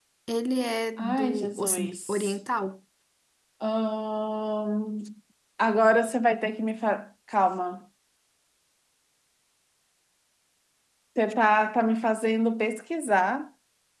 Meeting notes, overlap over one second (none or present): present